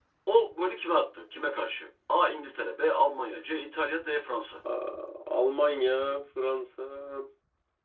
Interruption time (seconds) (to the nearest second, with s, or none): none